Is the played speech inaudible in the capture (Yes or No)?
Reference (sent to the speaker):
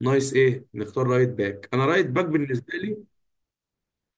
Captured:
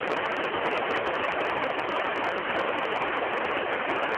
Yes